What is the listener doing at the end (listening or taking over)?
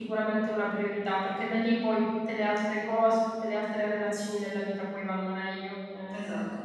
listening